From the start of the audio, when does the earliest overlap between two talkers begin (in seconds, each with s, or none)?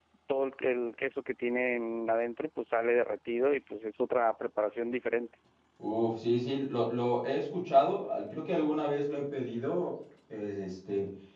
none